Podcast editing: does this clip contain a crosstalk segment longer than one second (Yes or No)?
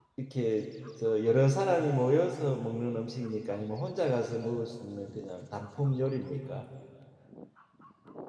No